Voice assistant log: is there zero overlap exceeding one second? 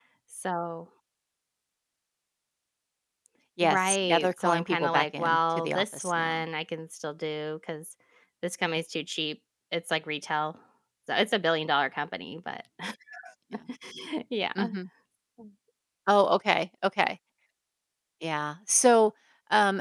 No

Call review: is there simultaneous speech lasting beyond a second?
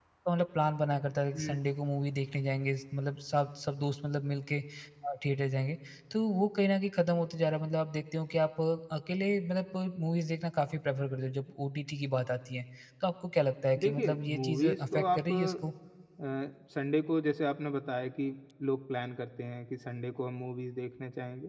Yes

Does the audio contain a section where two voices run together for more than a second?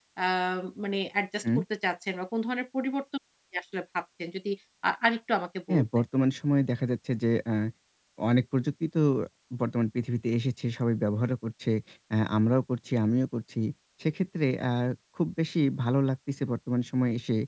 No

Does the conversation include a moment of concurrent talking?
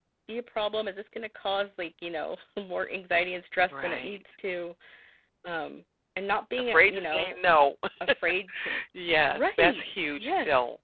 Yes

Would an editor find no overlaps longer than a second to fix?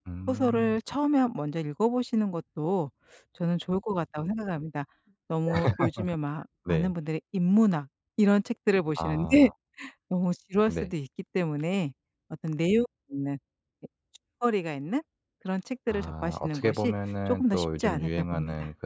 No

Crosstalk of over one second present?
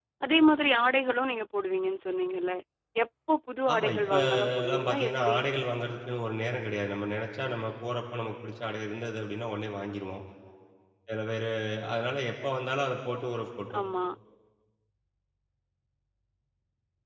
Yes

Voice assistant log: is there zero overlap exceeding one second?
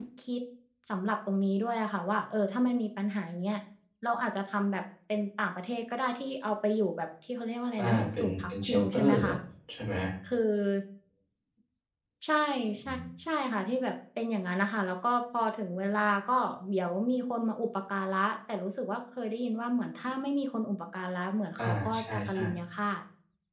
No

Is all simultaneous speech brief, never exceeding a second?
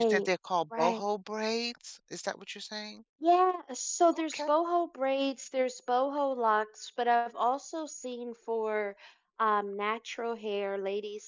Yes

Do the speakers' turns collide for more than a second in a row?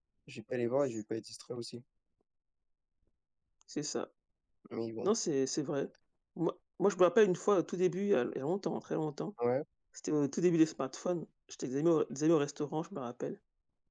No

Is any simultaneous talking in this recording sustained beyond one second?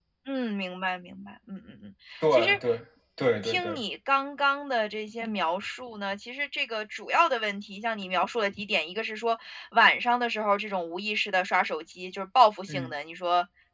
No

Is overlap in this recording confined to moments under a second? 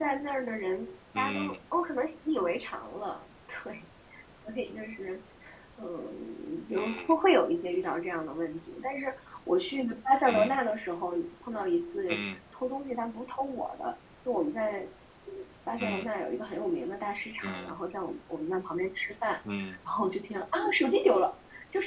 Yes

